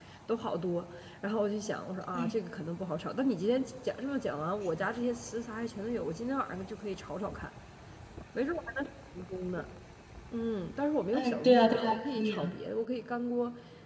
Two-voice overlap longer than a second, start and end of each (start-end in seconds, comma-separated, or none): 11.1-12.6